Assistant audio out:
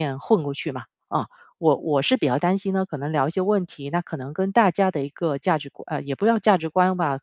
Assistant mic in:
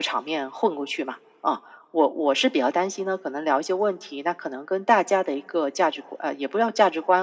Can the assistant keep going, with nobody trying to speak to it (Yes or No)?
Yes